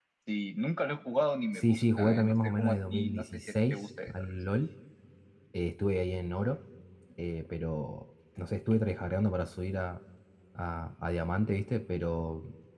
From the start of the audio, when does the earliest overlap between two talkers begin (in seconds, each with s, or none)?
1.5 s